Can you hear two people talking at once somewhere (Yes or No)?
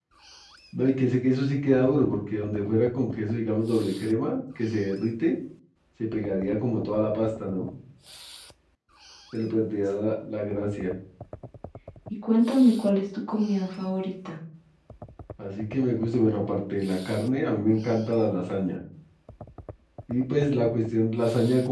No